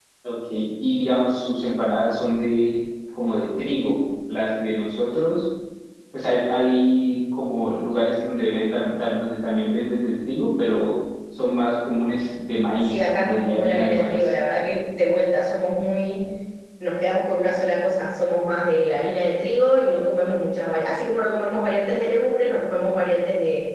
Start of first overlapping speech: 13 s

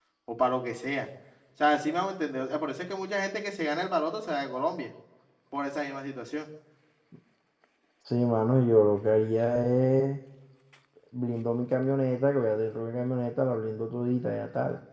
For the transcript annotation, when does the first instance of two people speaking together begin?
none

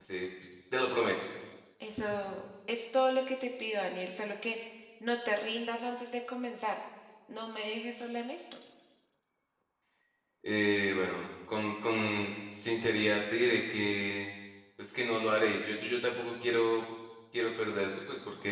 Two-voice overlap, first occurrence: none

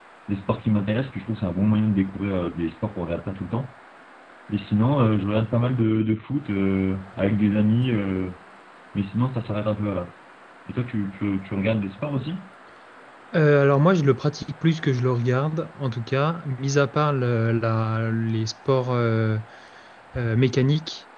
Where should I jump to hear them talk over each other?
none

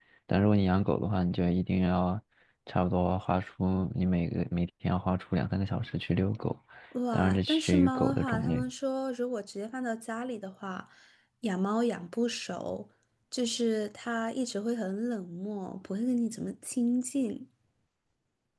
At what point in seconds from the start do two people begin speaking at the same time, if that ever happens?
7 s

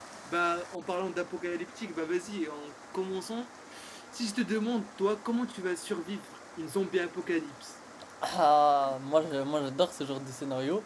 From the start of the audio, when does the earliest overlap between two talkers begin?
none

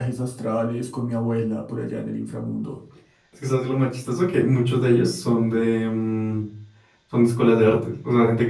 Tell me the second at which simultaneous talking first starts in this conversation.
none

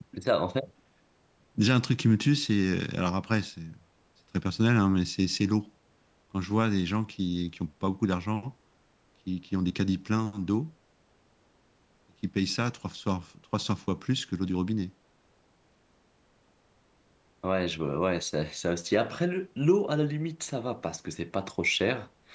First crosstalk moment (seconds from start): none

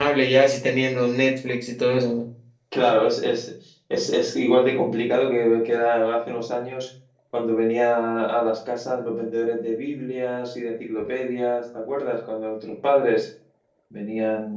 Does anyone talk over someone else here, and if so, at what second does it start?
none

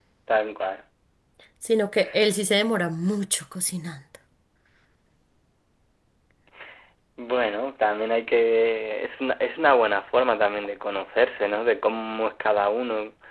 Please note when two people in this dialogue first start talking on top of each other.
none

